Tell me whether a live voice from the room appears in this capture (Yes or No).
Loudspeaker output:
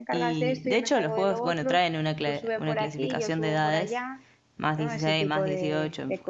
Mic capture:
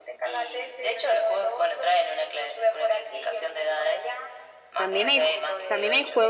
Yes